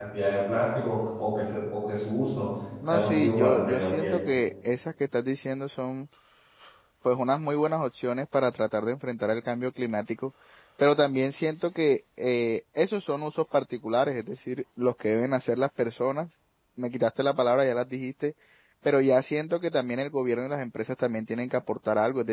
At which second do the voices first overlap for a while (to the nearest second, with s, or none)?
3 s